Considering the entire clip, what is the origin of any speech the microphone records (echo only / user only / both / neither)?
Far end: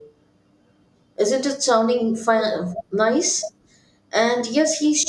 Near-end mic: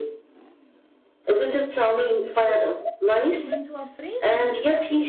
both